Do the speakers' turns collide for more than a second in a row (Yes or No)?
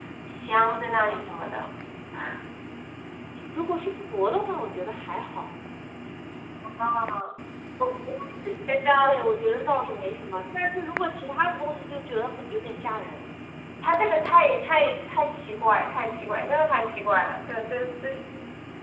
No